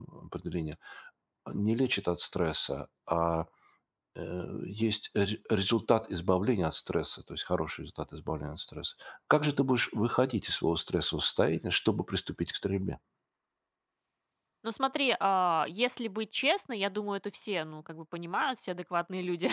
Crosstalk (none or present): none